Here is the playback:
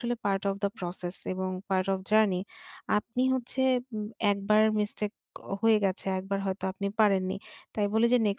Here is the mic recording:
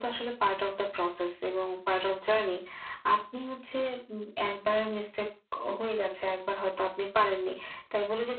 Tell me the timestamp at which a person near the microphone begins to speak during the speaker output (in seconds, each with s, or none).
none